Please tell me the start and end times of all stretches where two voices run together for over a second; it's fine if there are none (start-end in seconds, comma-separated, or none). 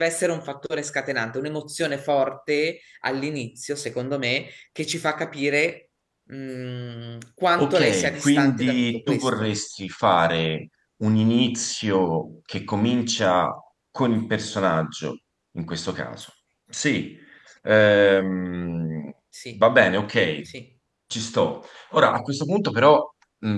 7.6-9.5